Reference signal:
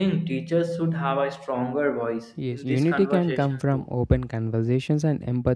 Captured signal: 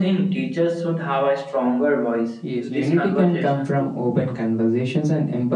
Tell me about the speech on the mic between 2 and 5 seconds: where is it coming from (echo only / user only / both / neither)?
echo only